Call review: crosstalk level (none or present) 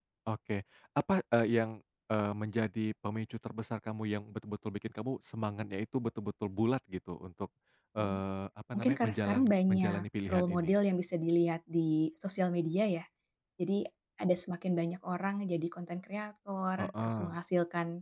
present